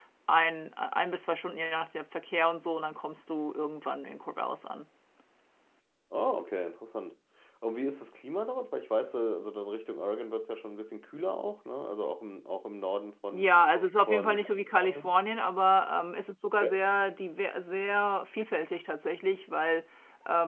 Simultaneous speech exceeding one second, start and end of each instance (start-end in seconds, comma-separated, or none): none